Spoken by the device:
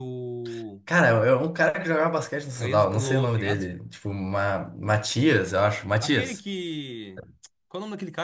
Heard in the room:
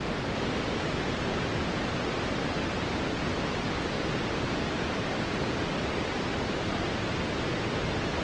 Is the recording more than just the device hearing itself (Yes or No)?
No